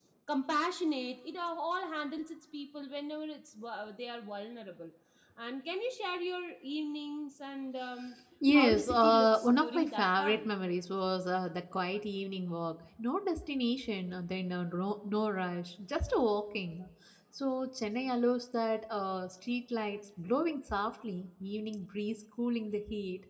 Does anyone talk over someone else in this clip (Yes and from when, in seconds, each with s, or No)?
Yes, from 8.4 s